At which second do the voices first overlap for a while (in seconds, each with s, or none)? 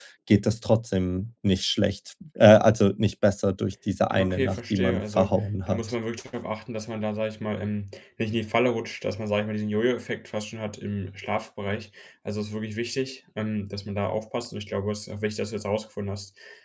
4.1 s